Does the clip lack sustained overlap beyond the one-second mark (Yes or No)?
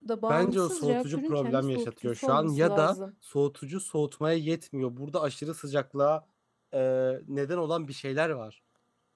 No